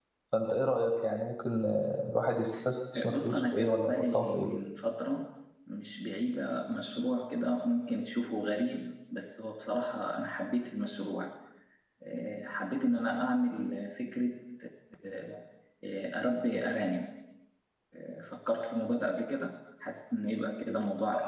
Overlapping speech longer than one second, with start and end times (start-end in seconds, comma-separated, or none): 3.1-4.5